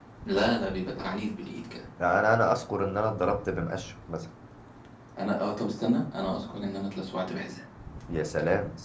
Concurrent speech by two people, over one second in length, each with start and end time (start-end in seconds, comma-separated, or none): none